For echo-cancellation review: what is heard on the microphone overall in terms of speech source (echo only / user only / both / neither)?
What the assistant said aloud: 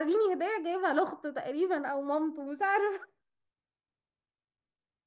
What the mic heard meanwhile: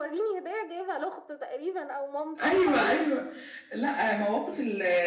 both